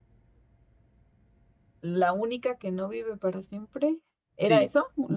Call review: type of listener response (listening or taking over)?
taking over